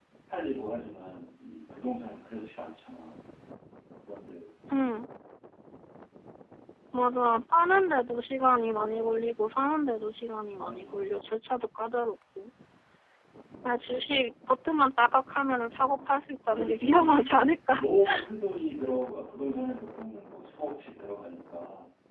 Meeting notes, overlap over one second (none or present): present